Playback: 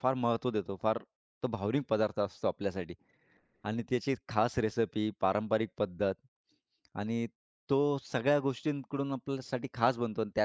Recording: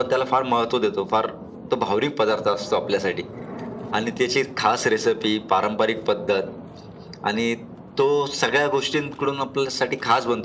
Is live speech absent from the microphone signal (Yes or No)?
Yes